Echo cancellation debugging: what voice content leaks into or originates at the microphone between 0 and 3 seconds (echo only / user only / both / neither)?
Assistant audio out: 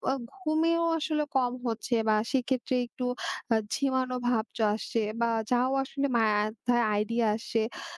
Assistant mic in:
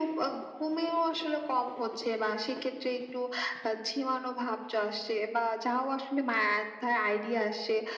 echo only